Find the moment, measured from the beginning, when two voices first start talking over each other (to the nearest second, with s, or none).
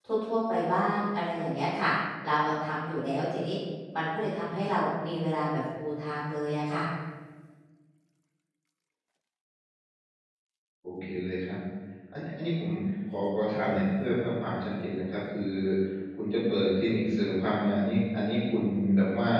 none